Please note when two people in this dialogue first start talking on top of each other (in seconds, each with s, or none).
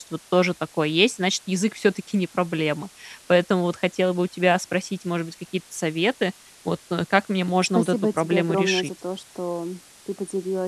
7.6 s